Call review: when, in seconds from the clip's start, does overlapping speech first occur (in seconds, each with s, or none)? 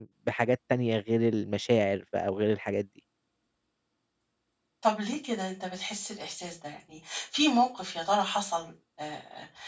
none